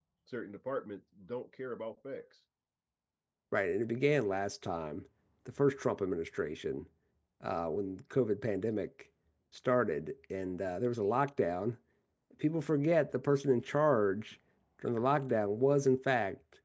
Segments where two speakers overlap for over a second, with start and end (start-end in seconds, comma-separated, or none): none